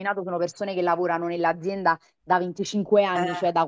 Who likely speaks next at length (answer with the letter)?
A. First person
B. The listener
A